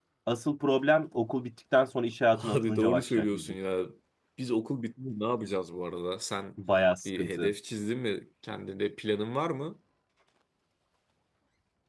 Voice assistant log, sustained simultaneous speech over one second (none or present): present